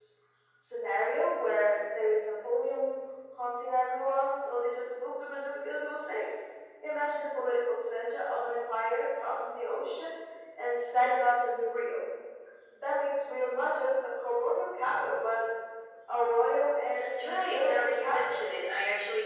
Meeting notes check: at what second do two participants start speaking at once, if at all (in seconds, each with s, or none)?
16.9 s